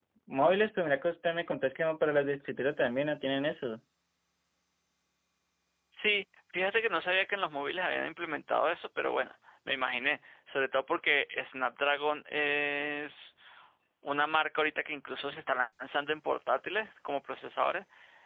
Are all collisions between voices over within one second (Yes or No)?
Yes